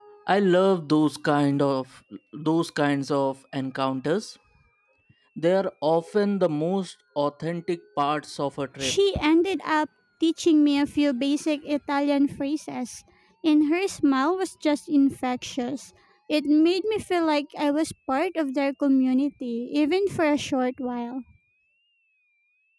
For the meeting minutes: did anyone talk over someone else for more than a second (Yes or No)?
No